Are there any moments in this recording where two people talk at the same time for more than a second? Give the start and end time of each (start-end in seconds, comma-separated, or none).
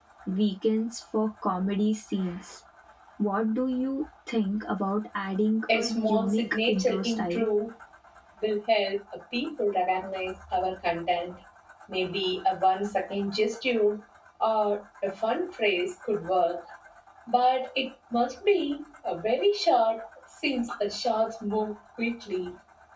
5.7-7.5